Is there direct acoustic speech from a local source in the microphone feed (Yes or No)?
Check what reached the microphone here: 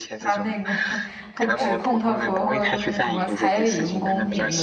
Yes